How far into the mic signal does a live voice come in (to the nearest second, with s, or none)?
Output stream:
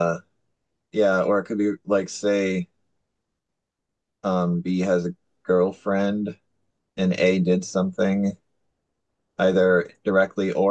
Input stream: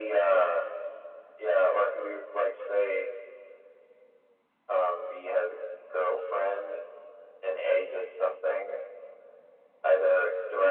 none